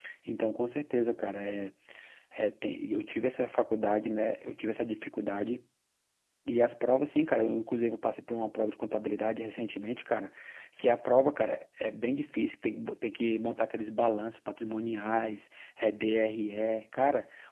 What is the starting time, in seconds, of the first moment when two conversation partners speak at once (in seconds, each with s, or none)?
none